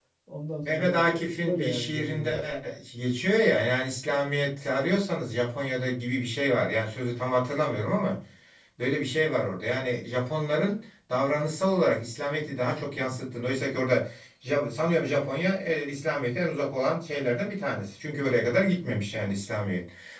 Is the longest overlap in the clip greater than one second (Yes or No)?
Yes